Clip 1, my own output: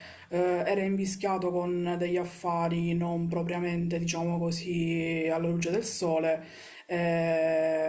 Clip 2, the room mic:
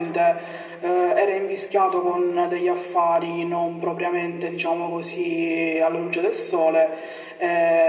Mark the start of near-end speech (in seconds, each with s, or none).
none